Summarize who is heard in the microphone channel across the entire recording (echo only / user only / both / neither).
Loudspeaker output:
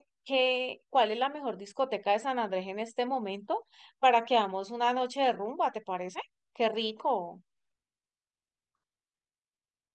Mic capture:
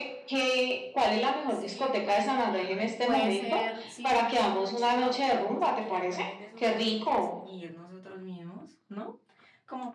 both